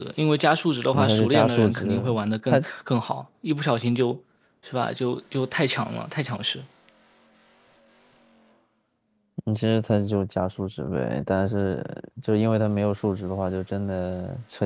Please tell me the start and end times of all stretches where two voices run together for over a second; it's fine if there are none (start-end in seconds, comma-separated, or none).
0.9-2.2